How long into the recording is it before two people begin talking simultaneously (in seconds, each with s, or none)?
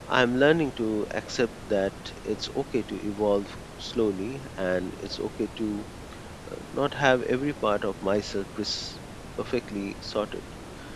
none